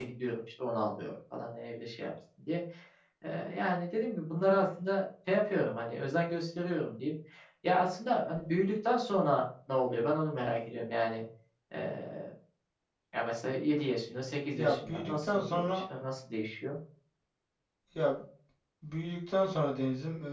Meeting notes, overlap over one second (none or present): present